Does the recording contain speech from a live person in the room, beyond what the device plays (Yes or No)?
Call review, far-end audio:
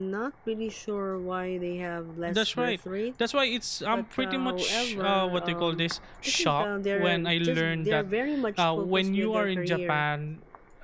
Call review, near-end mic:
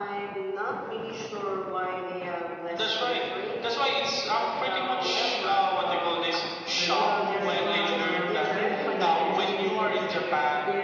Yes